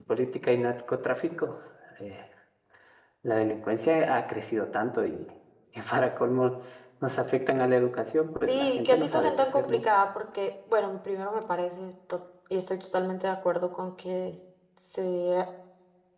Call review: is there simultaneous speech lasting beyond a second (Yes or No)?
Yes